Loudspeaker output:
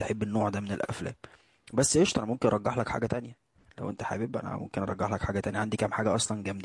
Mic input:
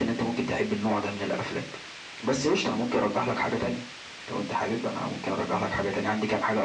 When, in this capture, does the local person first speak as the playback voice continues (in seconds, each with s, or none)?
none